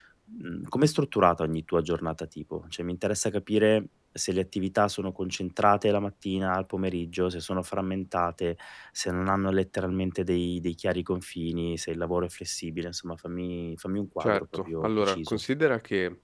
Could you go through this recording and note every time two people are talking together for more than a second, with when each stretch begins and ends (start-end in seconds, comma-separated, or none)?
14.2-15.4